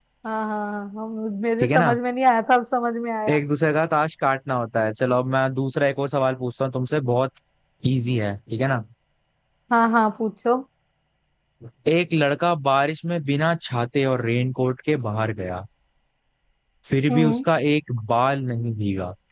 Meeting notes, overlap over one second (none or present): none